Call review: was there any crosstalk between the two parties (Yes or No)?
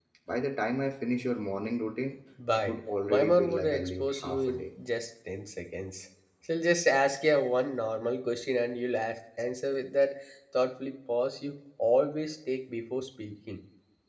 Yes